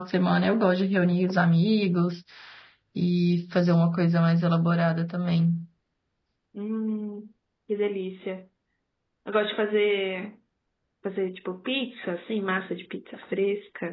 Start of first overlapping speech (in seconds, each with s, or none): none